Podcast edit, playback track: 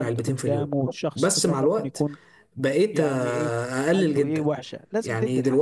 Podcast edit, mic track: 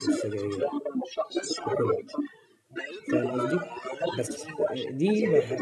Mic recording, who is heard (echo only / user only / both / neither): both